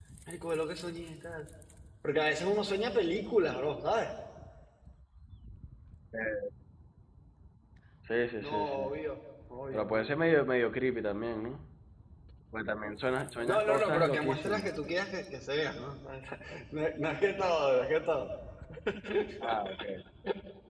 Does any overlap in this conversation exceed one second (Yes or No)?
Yes